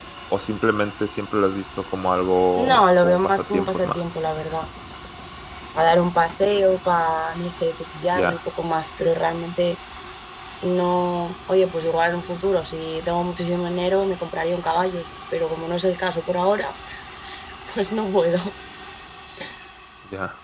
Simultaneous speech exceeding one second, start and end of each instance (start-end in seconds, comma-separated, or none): 2.7-4.0